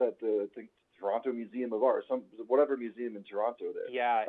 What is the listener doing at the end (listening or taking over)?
taking over